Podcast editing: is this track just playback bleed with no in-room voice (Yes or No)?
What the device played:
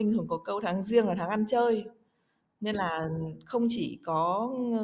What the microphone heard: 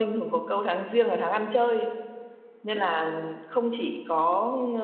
Yes